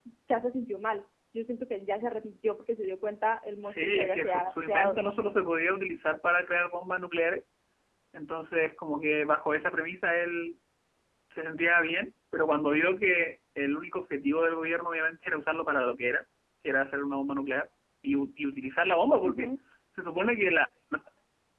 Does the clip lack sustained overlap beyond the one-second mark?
No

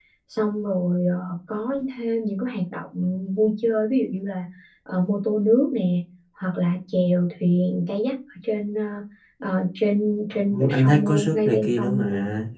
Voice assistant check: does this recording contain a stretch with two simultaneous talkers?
Yes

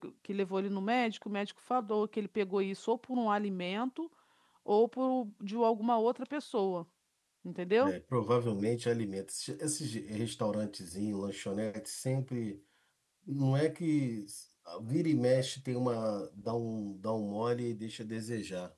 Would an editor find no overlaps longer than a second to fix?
Yes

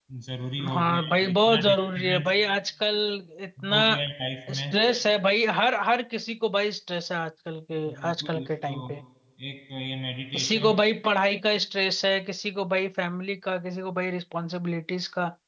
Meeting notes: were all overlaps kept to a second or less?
No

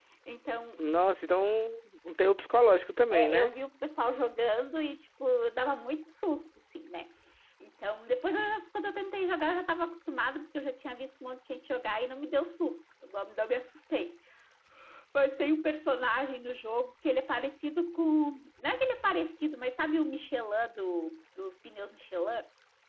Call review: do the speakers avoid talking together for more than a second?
Yes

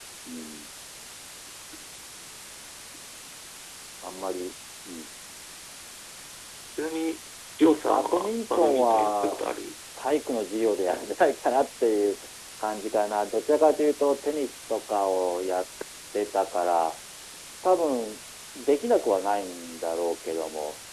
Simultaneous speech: Yes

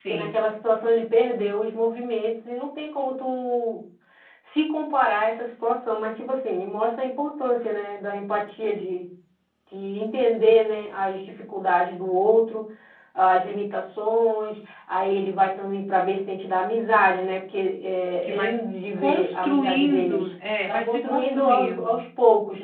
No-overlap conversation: No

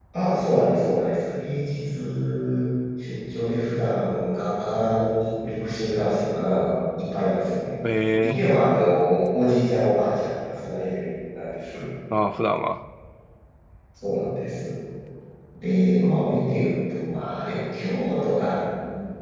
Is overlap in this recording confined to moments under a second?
Yes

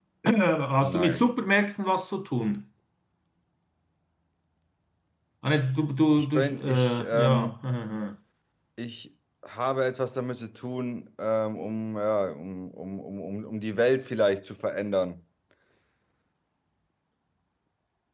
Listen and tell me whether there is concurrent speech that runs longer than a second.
Yes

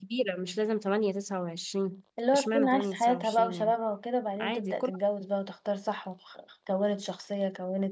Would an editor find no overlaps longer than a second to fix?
No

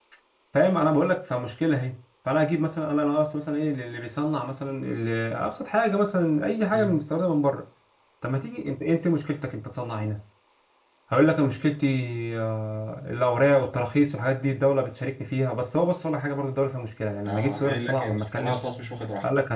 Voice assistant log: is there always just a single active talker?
No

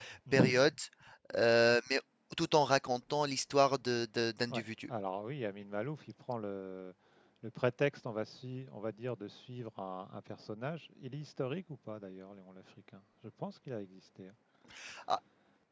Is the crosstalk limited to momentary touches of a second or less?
Yes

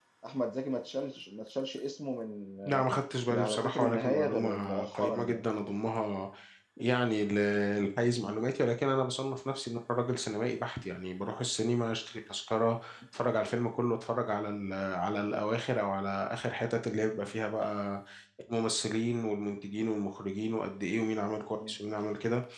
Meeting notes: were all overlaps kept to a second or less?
No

